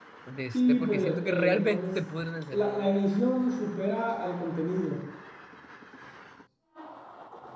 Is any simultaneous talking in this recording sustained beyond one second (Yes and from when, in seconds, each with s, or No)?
Yes, from 0.5 s